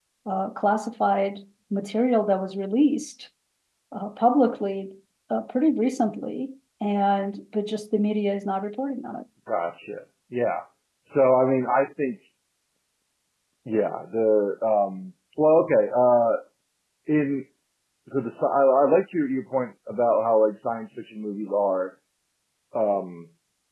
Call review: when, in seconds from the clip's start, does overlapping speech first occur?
none

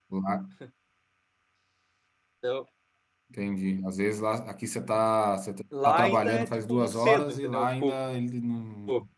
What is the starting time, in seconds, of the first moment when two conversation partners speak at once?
5.7 s

